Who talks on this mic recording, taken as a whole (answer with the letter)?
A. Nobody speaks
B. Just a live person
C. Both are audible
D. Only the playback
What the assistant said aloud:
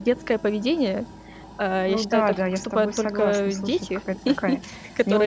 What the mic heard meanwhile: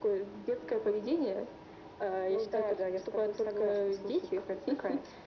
D